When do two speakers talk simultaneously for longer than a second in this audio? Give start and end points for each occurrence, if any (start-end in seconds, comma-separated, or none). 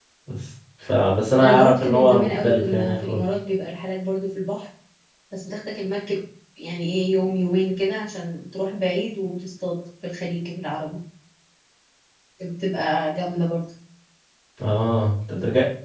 1.4-3.2